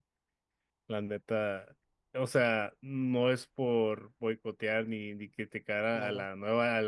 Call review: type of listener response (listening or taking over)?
listening